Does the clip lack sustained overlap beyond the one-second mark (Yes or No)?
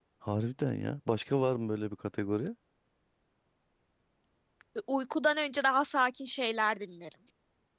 Yes